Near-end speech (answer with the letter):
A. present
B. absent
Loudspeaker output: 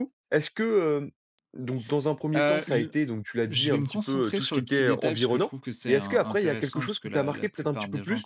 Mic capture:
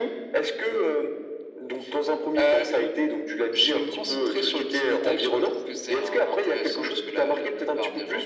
B